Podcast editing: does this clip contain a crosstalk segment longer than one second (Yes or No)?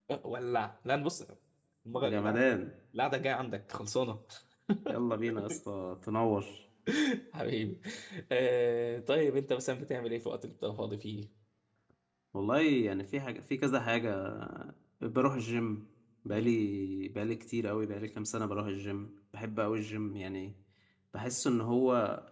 No